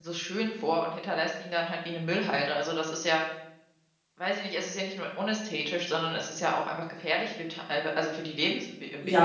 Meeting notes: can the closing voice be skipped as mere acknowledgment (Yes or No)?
No